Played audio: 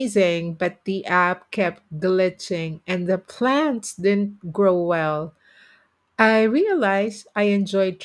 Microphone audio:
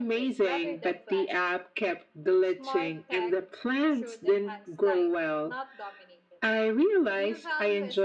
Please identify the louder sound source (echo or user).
echo